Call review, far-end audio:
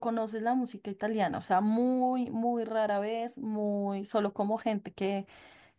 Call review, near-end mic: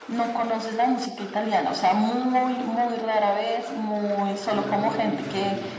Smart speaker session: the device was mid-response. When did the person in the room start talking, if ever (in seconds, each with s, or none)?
4.3 s